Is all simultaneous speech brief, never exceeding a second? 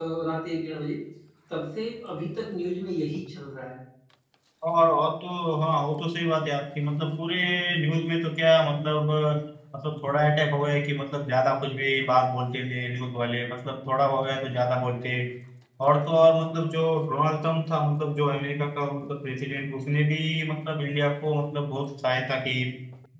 Yes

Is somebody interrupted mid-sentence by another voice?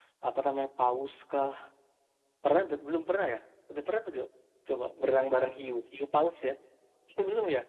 No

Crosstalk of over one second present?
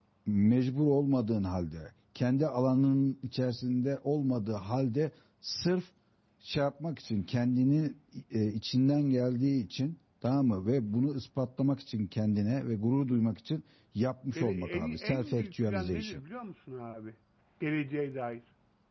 Yes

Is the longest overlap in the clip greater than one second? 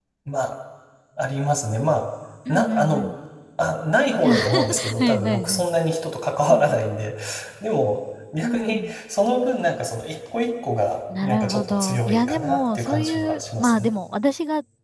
Yes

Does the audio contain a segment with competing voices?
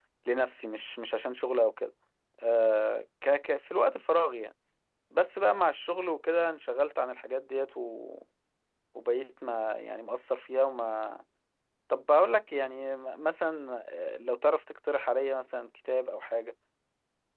No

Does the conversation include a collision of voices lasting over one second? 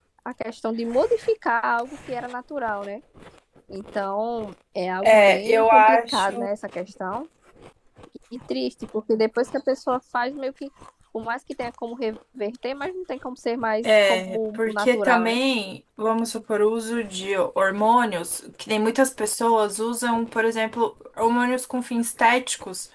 Yes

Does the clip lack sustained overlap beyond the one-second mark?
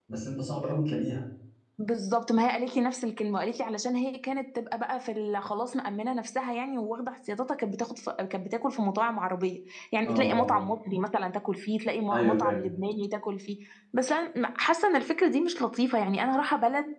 Yes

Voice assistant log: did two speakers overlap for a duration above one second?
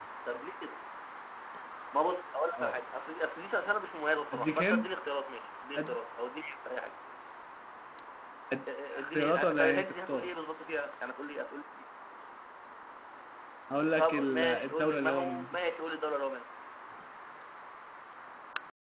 Yes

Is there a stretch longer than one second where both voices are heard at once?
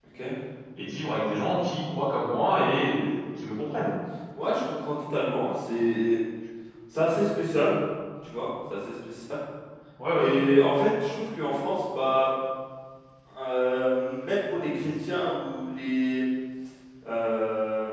No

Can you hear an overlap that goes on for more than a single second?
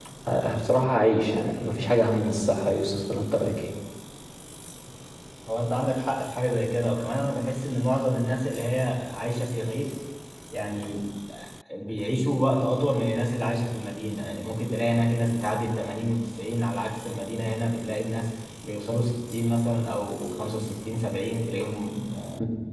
No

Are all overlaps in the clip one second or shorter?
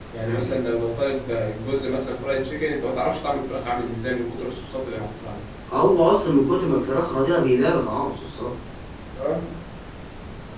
Yes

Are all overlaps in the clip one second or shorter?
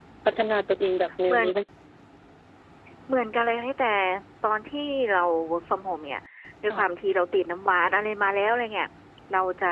Yes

